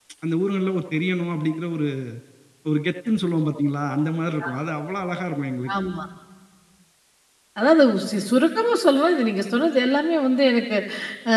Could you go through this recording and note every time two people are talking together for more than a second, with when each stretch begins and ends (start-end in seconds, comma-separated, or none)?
none